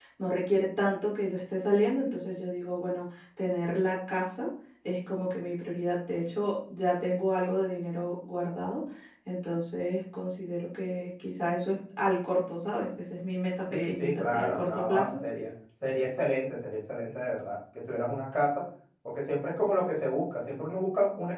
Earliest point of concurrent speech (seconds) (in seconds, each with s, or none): 13.7 s